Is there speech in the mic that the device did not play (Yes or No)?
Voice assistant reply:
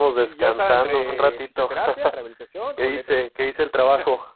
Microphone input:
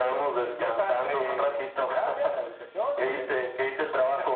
No